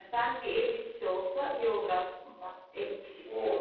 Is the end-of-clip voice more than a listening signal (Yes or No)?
Yes